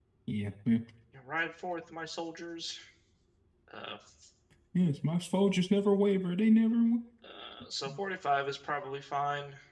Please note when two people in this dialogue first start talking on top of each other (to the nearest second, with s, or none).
none